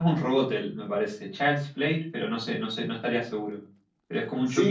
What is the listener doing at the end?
taking over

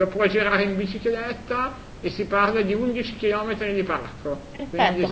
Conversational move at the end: taking over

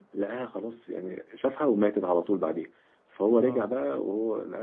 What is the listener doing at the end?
listening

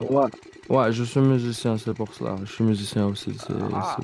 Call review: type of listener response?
taking over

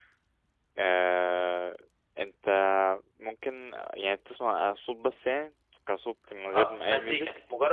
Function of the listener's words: taking over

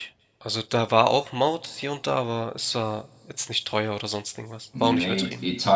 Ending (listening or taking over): taking over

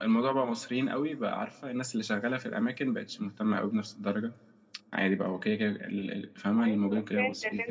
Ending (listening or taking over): taking over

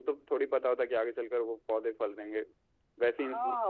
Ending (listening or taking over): taking over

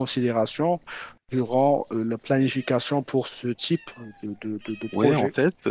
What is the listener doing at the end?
taking over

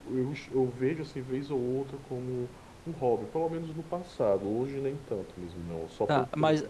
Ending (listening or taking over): taking over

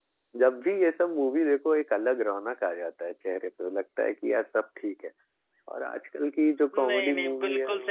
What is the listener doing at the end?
taking over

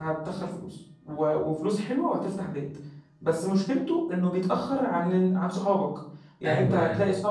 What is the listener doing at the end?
listening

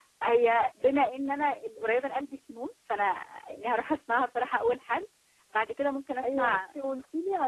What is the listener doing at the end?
taking over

